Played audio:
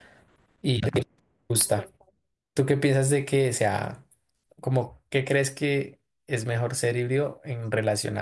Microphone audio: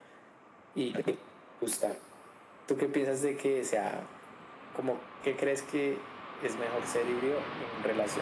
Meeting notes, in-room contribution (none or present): none